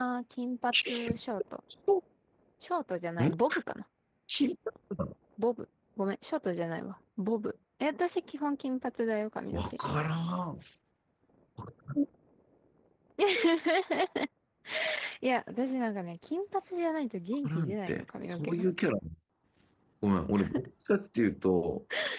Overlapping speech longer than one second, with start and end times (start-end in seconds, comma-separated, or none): 17.4-18.6